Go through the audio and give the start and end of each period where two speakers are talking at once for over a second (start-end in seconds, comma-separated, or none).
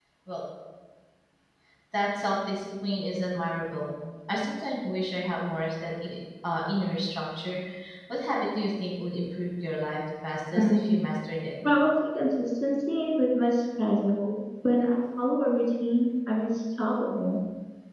none